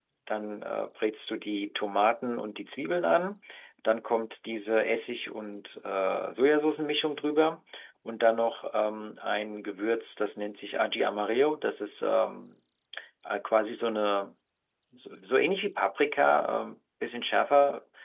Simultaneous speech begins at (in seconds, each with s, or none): none